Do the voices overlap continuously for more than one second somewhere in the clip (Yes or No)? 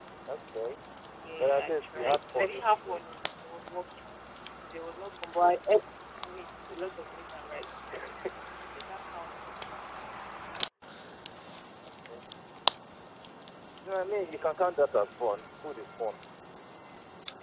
Yes